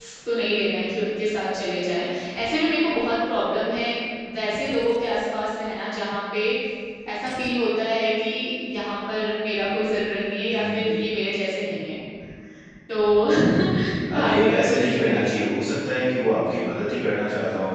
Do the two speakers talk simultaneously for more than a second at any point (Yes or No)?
Yes